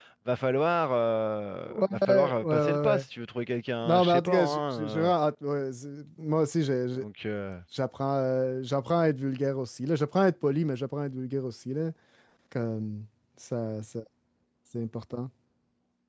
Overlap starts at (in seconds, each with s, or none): 1.7 s